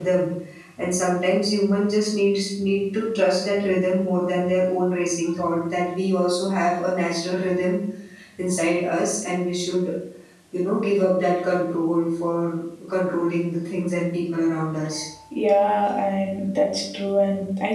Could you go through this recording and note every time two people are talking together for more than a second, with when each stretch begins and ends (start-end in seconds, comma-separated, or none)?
none